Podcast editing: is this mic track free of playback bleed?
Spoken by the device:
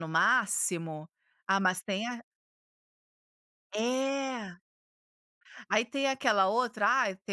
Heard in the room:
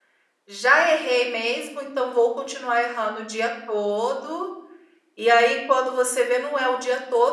Yes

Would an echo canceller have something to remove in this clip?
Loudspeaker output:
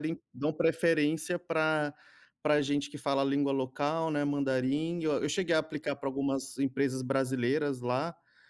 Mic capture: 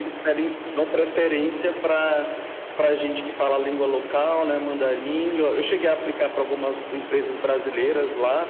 Yes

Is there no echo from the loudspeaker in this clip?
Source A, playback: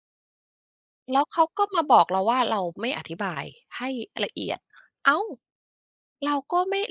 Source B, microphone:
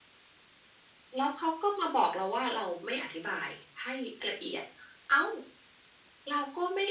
No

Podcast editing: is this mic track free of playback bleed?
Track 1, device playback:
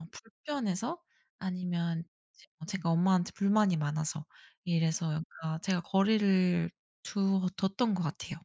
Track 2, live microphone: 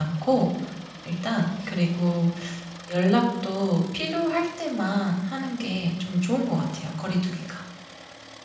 Yes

